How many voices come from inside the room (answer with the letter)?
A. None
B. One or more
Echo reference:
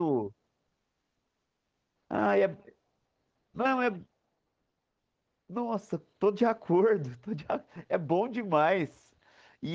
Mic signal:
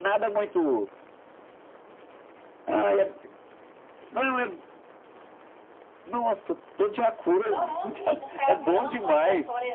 B